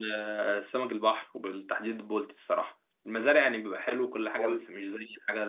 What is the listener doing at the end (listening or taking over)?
listening